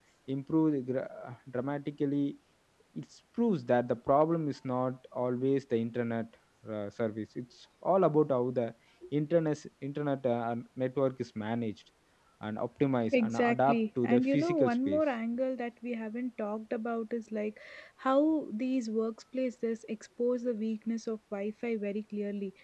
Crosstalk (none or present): present